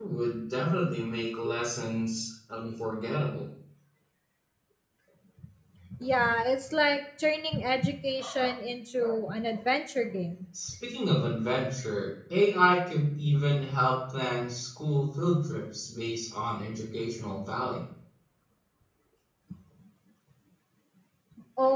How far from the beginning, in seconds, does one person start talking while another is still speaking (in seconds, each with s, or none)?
none